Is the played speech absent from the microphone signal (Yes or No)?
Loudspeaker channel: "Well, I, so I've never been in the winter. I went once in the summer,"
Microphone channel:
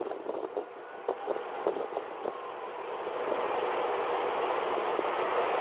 Yes